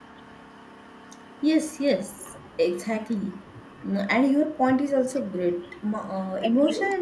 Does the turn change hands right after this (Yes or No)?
No